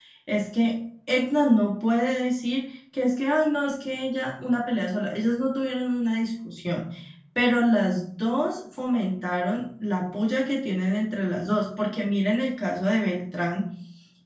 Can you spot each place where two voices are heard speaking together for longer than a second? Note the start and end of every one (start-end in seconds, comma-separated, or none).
none